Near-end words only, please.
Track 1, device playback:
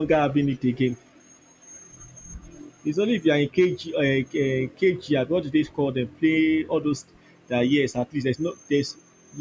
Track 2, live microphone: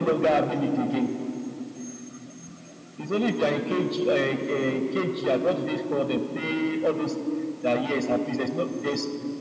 none

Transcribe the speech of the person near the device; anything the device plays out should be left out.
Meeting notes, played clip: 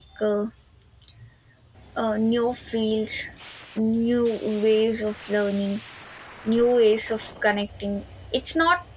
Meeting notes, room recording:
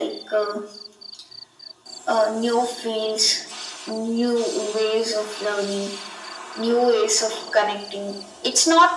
none

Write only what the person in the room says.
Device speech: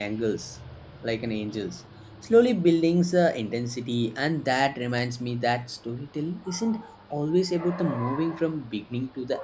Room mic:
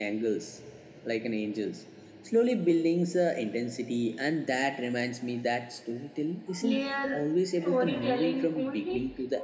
layer storytelling only

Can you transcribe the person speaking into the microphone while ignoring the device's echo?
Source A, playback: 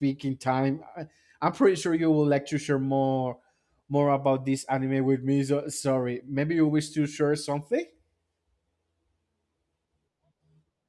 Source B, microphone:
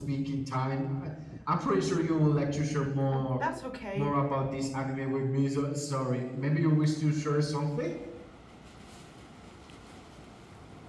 Uh, that's okay.

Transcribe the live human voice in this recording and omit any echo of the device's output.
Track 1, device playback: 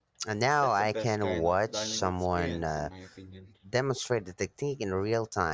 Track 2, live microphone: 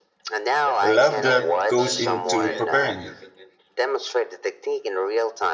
love that goes into preparing it.

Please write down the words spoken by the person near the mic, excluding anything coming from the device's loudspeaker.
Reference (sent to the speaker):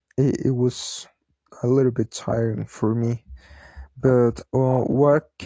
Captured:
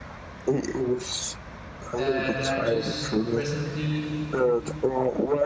uh, that I just recently

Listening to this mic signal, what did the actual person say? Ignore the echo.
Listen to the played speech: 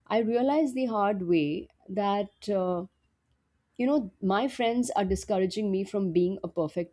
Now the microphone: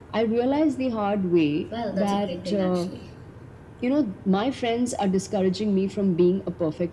Well, that's a great thing, actually.

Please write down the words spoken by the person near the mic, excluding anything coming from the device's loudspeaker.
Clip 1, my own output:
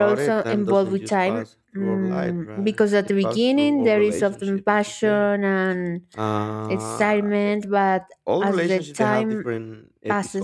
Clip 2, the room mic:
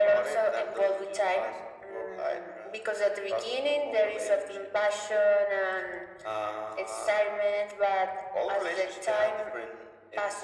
none

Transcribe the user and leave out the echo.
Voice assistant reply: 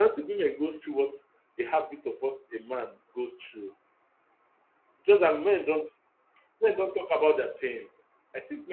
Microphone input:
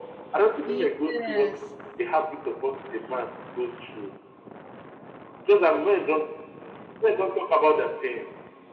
Yes.

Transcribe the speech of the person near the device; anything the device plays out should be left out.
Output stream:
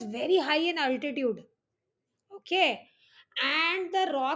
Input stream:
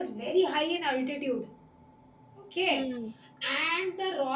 Hmm.

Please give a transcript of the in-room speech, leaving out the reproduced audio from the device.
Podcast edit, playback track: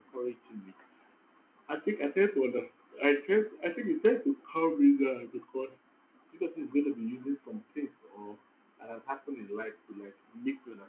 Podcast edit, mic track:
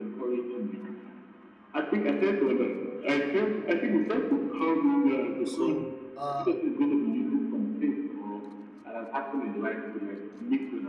So, uh,

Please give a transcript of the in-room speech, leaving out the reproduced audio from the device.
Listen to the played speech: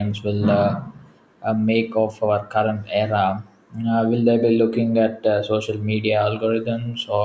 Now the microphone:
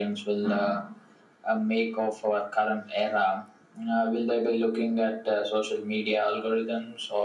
none

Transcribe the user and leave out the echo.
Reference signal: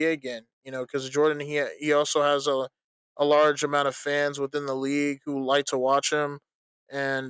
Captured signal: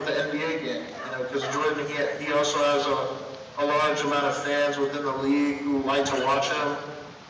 none

